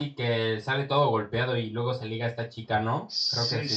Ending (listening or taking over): taking over